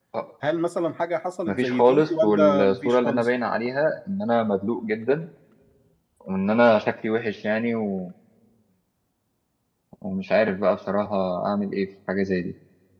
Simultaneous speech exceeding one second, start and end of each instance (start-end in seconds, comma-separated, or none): 1.5-3.3